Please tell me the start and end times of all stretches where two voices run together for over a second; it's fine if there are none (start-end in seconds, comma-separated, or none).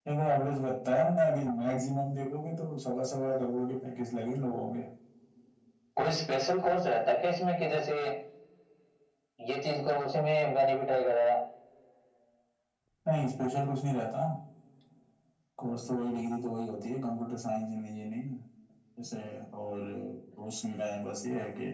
none